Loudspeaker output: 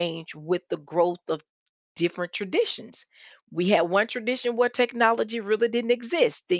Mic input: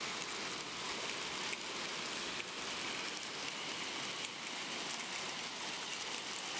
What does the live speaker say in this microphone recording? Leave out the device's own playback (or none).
none